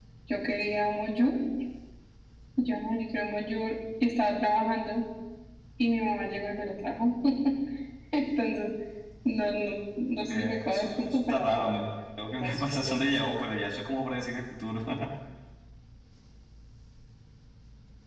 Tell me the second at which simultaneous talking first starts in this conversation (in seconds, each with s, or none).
10.3 s